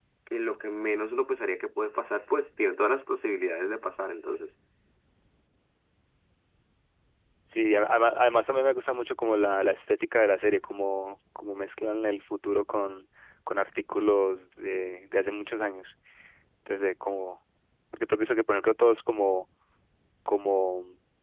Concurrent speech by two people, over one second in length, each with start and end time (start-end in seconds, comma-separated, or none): none